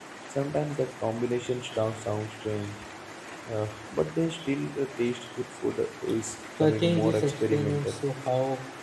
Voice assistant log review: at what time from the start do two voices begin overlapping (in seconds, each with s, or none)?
6.6 s